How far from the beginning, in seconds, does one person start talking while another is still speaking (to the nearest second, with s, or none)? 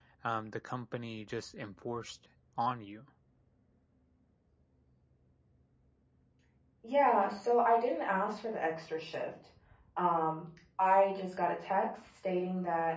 none